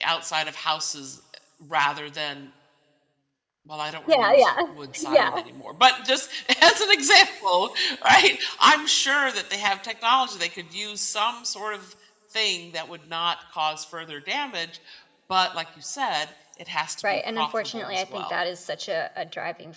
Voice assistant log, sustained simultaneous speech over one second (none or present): present